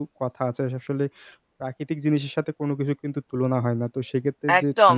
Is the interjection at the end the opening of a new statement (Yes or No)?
Yes